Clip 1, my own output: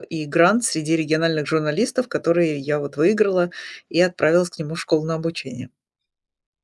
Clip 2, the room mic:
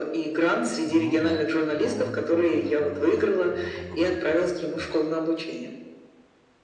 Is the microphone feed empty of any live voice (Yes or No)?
No